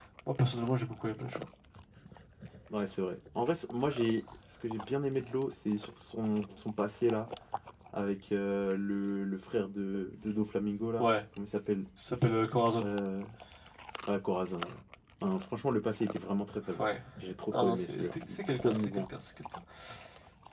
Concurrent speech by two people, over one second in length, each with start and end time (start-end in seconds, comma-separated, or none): 17.5-19.1